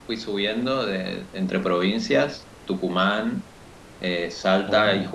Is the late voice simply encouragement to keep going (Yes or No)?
Yes